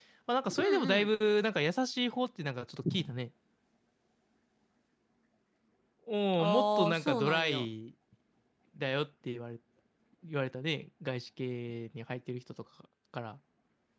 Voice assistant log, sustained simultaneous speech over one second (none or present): present